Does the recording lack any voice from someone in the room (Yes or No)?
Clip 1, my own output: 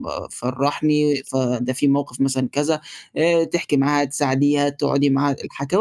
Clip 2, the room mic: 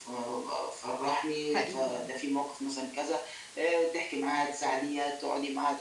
No